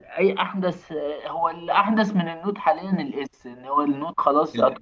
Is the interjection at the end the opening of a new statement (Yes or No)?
No